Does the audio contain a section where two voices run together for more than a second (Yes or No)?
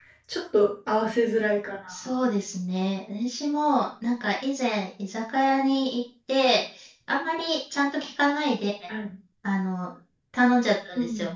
No